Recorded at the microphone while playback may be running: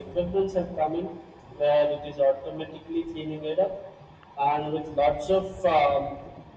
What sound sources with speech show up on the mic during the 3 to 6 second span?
echo only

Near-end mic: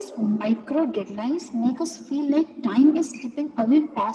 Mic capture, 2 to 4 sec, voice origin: echo only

